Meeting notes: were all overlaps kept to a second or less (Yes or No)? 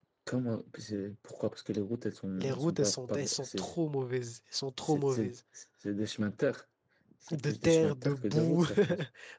No